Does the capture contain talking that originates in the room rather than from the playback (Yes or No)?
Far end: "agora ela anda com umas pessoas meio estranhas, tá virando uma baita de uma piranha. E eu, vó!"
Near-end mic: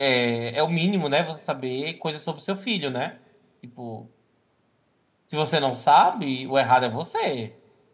Yes